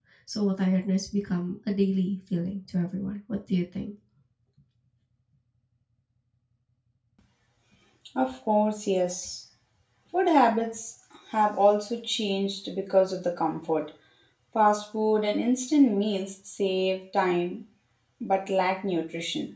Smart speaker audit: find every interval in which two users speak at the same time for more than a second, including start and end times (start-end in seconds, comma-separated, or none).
none